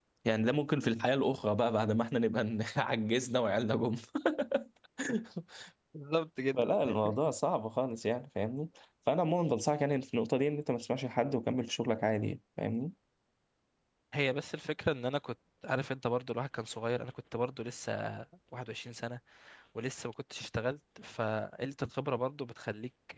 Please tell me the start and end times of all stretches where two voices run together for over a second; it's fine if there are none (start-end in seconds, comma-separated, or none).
none